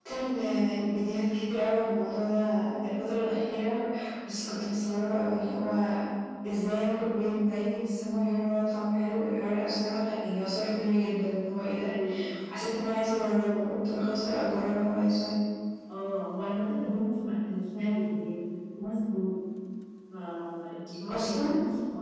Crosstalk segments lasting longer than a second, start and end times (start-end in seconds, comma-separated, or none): none